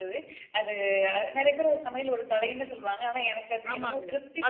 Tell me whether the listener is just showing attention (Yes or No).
No